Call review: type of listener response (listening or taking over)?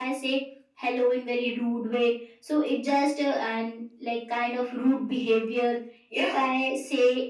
listening